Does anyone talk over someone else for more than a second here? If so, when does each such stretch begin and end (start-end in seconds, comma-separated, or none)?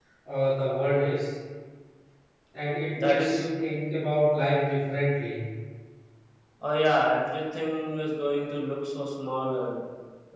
none